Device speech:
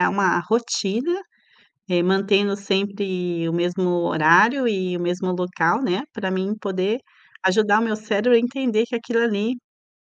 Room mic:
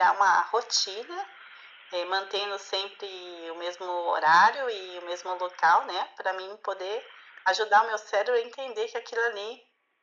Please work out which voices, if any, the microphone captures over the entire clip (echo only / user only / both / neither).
echo only